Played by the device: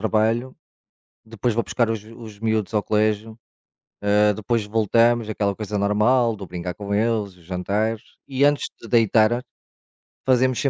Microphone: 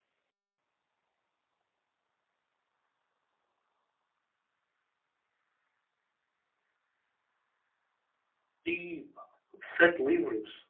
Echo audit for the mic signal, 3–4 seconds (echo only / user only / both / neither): neither